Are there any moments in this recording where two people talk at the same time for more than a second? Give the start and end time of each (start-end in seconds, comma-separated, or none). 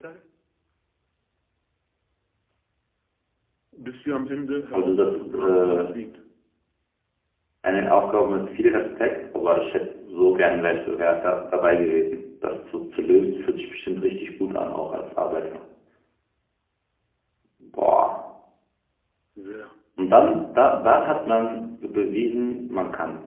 4.7-6.0